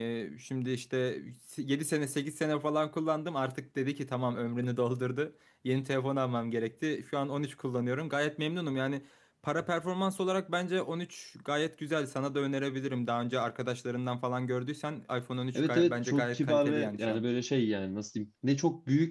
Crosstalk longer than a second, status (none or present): present